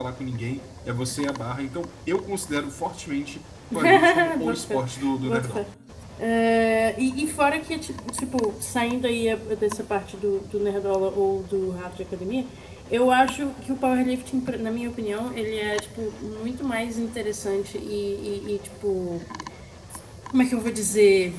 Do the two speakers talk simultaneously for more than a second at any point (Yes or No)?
Yes